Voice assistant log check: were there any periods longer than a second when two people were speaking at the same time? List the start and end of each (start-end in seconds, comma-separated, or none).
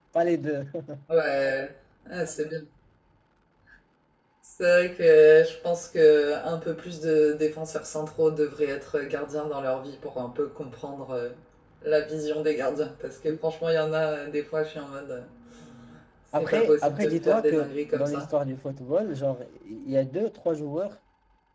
16.4-18.3